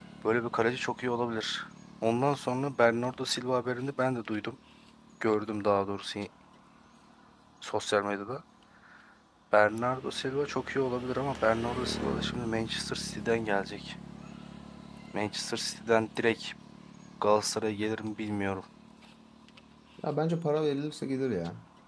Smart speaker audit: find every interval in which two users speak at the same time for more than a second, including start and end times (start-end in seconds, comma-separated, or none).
none